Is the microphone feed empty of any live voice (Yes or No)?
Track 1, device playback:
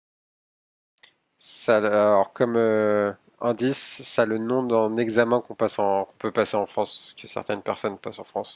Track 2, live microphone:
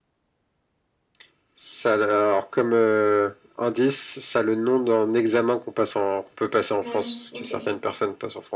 No